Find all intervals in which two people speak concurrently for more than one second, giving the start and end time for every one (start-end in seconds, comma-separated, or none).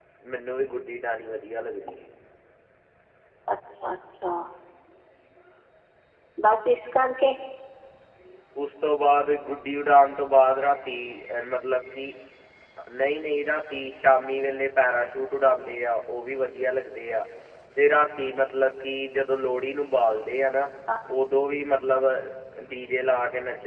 none